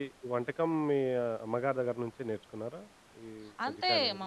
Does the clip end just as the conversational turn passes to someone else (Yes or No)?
Yes